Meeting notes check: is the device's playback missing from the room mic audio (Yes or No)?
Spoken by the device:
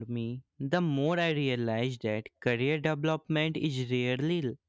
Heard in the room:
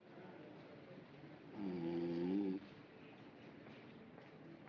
Yes